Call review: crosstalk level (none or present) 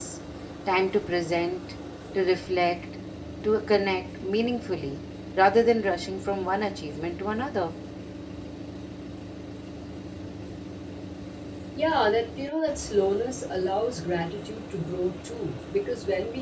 none